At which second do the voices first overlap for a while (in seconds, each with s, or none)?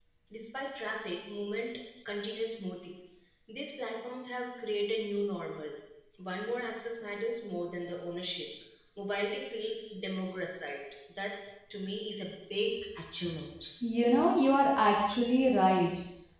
none